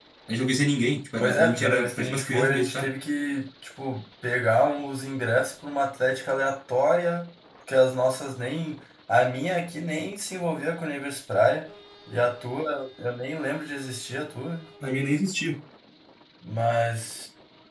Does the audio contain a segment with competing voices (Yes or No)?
Yes